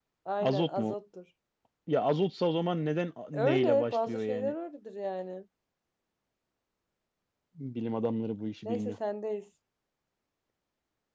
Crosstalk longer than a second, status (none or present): present